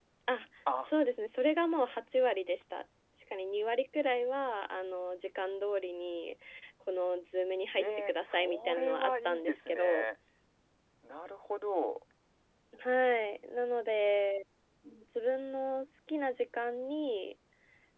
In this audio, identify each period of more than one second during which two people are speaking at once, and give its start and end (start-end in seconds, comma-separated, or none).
7.8-10.0